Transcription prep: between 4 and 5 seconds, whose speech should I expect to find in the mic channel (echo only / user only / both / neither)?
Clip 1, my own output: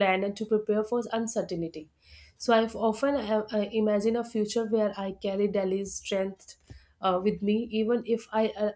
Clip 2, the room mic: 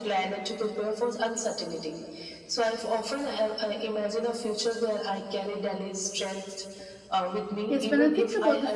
echo only